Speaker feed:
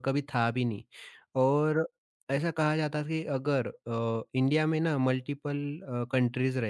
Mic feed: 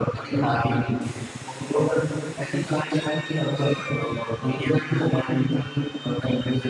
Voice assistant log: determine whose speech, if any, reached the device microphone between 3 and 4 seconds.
echo only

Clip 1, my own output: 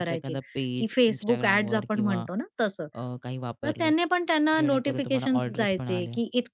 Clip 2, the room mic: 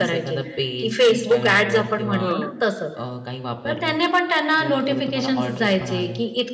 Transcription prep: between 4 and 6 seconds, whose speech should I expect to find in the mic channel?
echo only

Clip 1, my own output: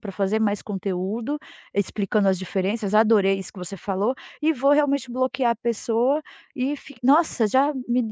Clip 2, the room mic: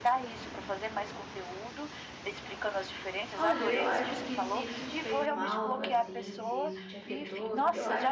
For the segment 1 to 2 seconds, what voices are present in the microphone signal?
echo only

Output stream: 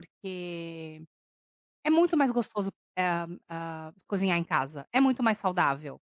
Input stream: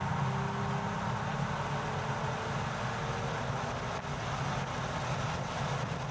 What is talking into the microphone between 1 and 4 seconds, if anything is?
neither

